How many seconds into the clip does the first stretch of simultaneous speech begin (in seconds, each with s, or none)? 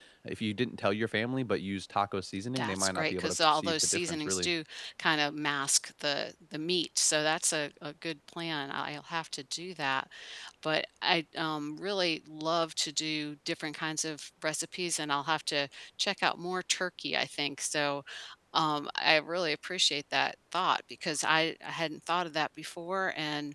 2.5 s